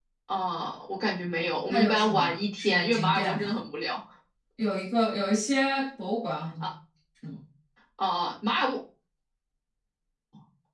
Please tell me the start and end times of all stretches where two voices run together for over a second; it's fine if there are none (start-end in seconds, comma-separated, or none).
1.7-3.6